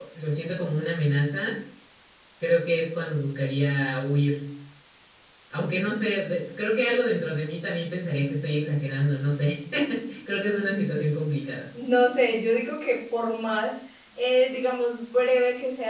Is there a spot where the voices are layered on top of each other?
No

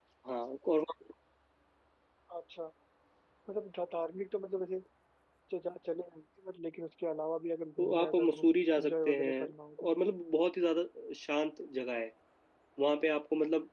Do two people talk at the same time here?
Yes, from 7.8 s

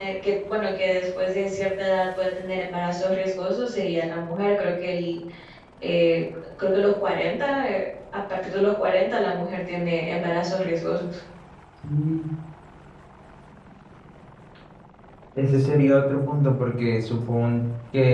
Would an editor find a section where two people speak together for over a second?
No

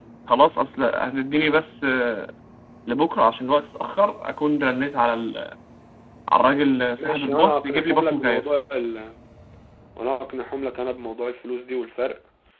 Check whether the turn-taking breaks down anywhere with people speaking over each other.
Yes, from 7.0 s

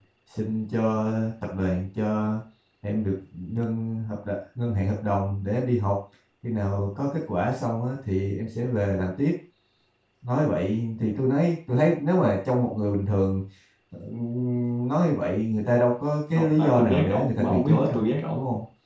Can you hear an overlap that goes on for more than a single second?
Yes, from 16.4 s

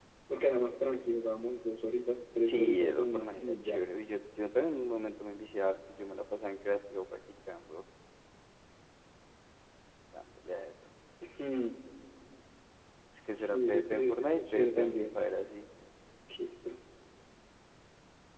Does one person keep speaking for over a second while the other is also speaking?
Yes, from 2.4 s

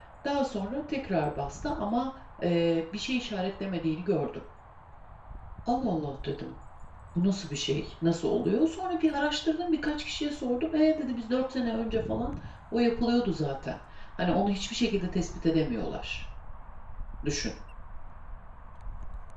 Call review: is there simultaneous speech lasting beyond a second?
No

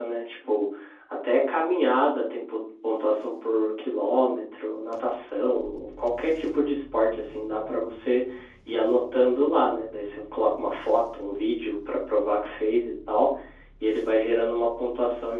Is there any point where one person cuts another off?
No

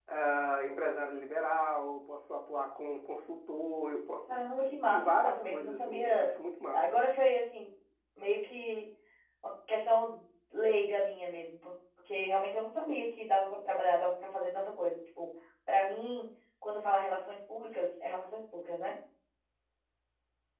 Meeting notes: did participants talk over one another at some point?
Yes, from 4.3 s

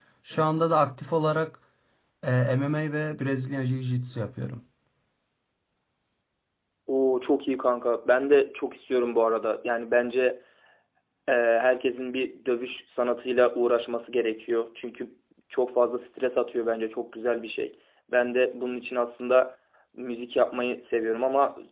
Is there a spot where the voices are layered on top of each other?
No

